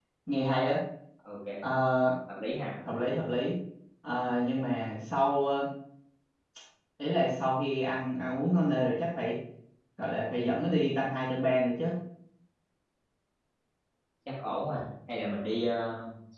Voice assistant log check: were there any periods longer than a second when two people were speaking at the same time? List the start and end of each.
none

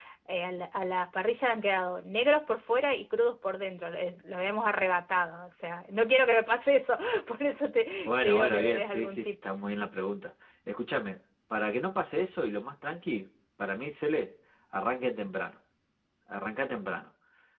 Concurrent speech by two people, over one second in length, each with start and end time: 8.1-9.3

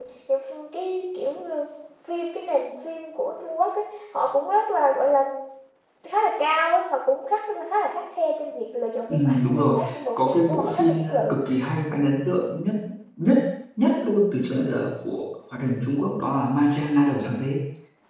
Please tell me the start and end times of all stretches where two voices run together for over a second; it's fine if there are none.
9.1-11.4

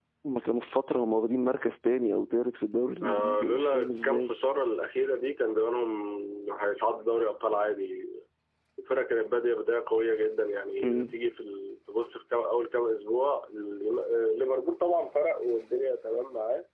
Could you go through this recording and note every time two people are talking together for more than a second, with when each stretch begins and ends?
3.0-4.3

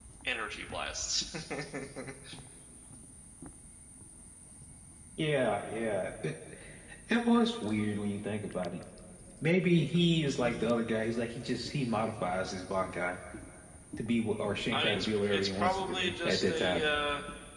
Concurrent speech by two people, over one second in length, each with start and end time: 14.7-16.9

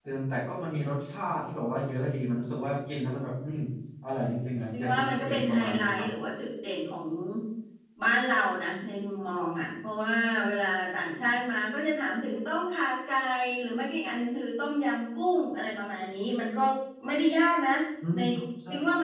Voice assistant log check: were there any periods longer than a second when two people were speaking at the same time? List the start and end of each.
4.8-6.1

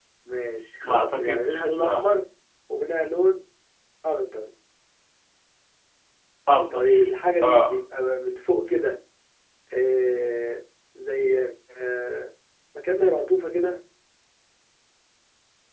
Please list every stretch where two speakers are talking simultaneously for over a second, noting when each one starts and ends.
0.8-2.1

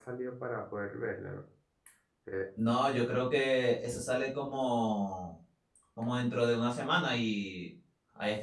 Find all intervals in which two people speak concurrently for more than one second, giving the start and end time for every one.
none

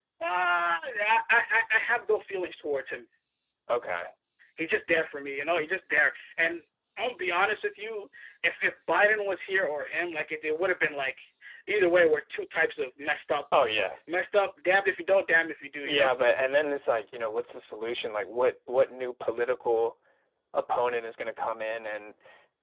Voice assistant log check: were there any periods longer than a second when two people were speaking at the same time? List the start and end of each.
none

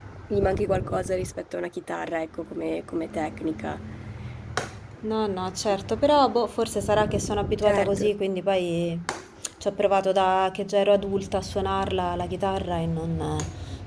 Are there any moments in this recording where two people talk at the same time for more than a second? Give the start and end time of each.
none

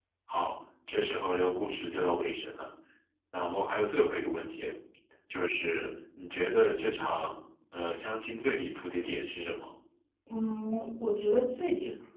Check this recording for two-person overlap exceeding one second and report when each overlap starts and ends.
none

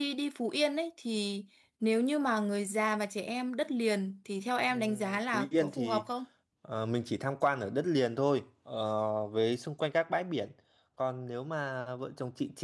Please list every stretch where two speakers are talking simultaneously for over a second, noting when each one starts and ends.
4.7-6.0

